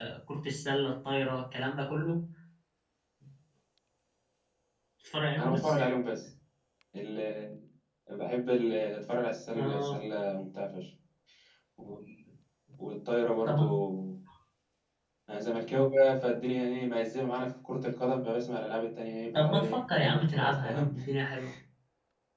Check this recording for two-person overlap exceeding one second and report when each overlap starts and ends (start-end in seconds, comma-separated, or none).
19.4-20.9